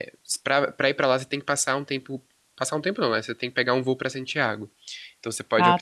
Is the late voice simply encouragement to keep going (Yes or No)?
Yes